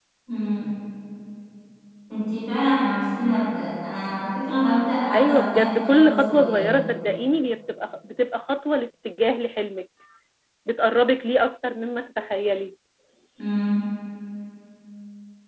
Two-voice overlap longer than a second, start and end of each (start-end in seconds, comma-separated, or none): 5.1-6.8